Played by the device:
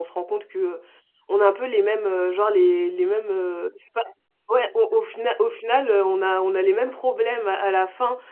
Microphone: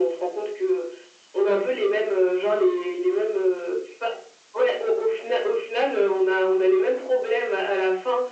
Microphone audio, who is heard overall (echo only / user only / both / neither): echo only